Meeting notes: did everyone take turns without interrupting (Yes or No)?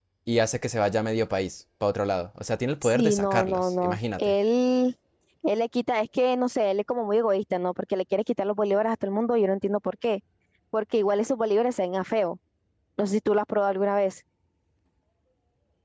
No